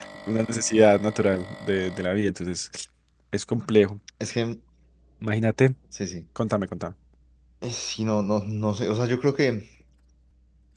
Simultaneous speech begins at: none

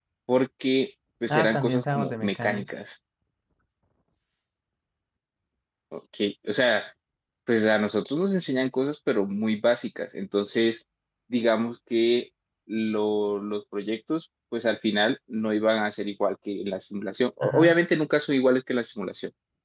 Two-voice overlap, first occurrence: 1 s

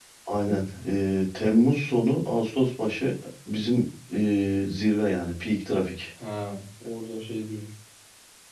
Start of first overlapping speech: none

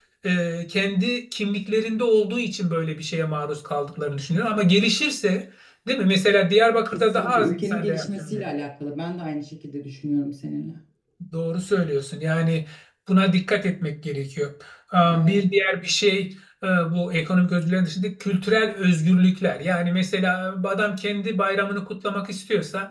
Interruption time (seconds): 7 s

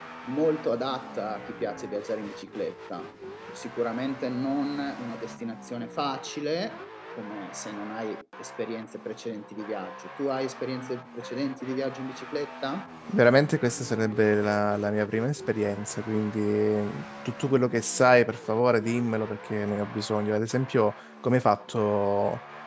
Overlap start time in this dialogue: none

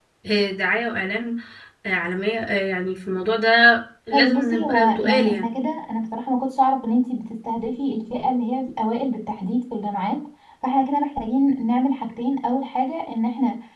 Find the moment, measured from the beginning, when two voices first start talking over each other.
4 s

